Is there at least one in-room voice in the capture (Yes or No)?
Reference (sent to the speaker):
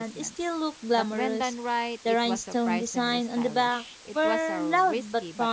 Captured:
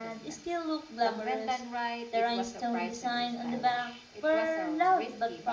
No